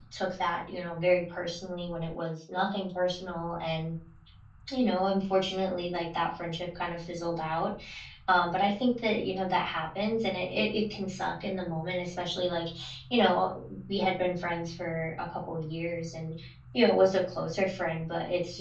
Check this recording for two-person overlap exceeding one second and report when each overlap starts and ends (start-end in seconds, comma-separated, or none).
none